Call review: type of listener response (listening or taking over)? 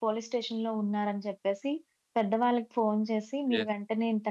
listening